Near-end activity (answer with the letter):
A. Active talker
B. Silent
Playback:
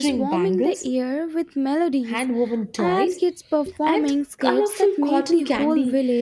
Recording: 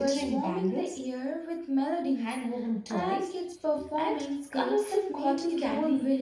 B